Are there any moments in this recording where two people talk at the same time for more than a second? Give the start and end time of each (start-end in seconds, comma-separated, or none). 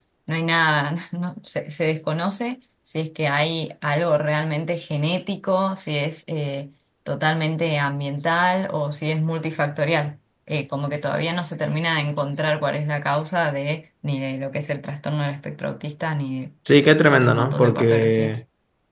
17.1-18.4